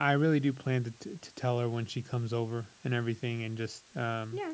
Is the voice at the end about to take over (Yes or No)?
Yes